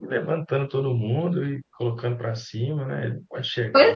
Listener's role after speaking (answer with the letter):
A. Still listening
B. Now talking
B